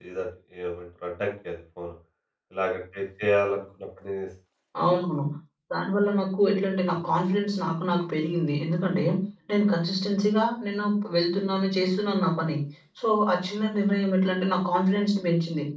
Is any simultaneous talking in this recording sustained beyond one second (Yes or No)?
No